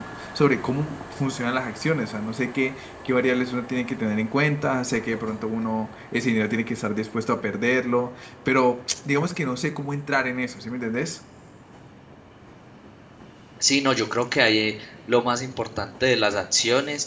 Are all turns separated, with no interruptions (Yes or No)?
Yes